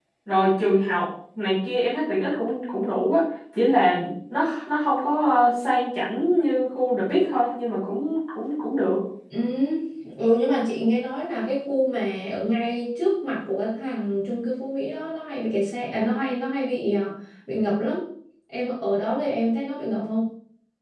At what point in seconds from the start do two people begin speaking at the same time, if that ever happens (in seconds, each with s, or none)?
none